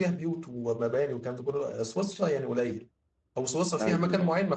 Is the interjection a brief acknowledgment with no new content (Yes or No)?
Yes